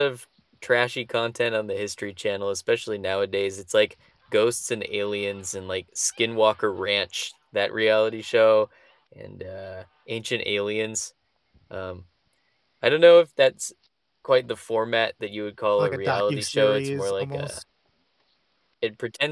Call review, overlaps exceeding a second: present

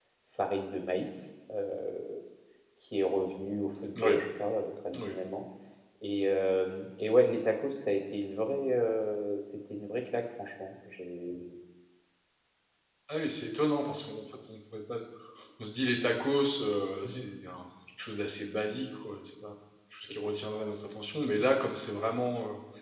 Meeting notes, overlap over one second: none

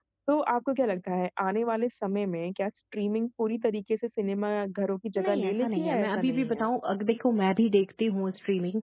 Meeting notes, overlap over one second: present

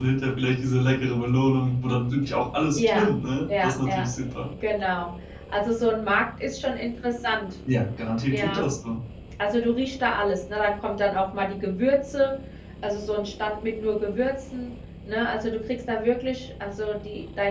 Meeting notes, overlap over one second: none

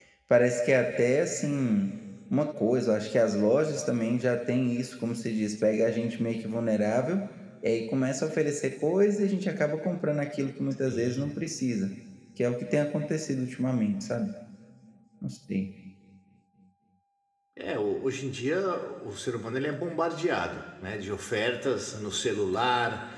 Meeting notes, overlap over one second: none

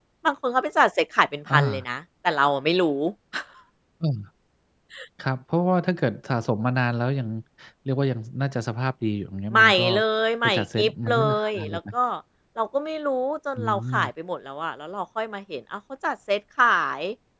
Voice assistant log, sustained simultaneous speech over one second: present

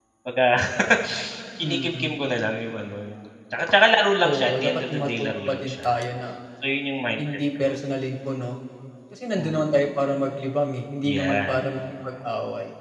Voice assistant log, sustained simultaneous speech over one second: present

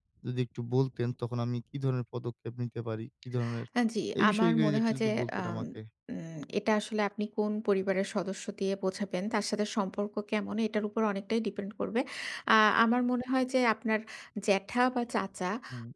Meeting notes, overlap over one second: present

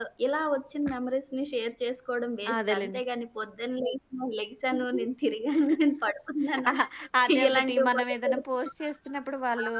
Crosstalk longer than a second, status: present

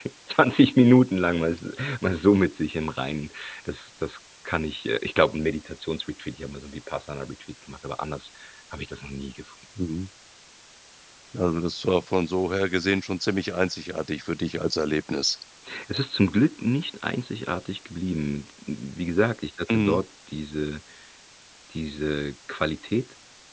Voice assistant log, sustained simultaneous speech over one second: none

